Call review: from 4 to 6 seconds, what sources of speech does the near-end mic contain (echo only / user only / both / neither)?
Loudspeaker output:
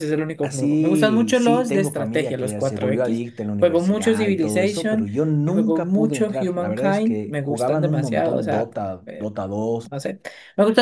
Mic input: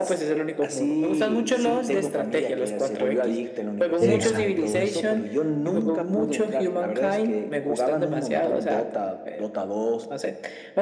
both